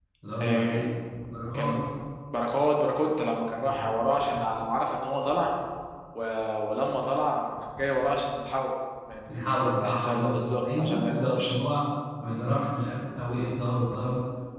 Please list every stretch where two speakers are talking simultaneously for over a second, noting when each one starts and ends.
9.3-11.6

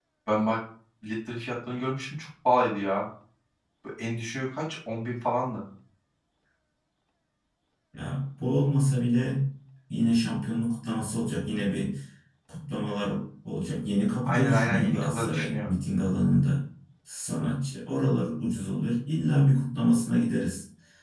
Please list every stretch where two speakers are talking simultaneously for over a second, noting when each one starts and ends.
14.3-15.7

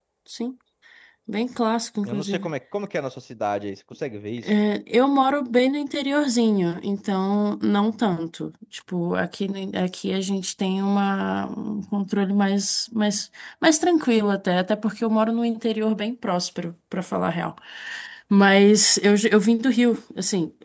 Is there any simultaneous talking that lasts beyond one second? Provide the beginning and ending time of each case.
none

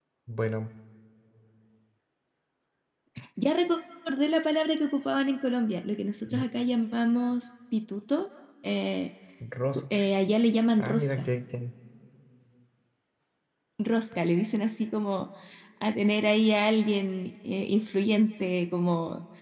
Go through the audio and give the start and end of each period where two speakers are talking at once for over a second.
none

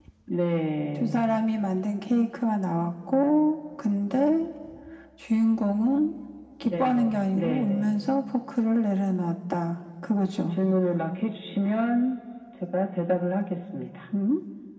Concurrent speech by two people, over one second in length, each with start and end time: 6.6-8.0

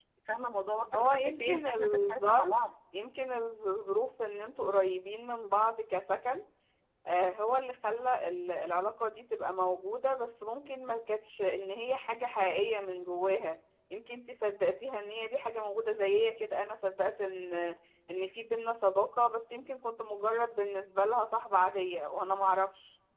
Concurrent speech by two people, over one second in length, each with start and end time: 0.9-2.5

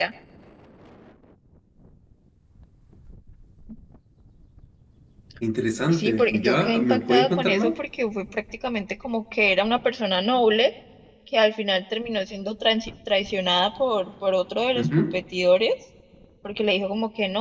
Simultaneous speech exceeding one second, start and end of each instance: 5.9-7.7

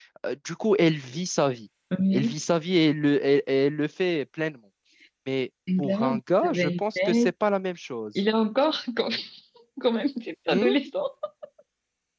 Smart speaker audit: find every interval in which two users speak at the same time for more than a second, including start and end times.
5.8-7.3

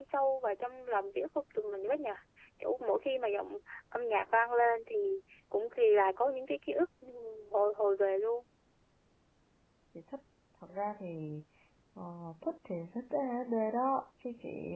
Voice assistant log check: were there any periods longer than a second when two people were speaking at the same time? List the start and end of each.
none

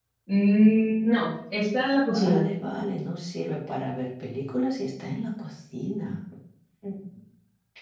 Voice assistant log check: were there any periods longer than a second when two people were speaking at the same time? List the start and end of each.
none

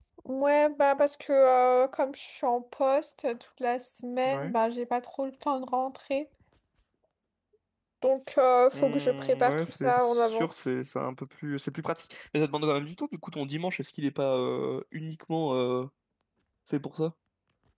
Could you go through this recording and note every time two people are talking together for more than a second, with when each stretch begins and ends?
8.7-10.5

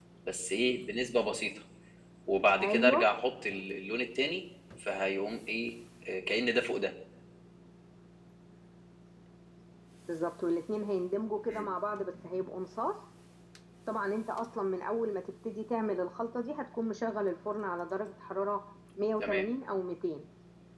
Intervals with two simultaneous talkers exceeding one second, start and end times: none

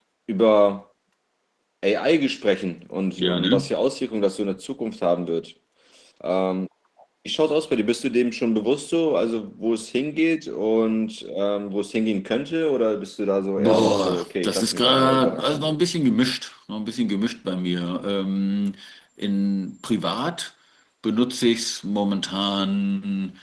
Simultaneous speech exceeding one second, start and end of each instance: 13.6-15.8

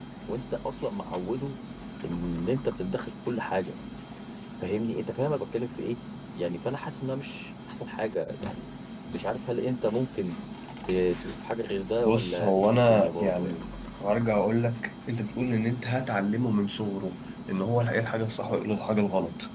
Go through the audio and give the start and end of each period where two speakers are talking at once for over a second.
12.1-13.5

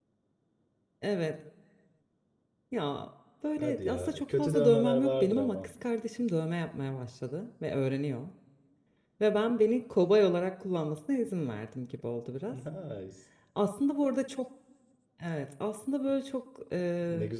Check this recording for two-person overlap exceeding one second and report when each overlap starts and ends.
3.6-5.7

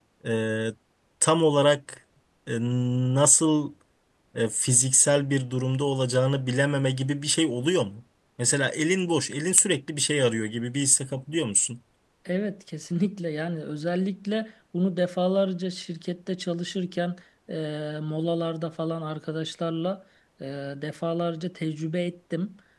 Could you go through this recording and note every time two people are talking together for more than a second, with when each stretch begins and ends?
none

